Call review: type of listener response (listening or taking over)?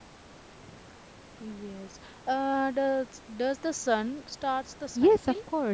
taking over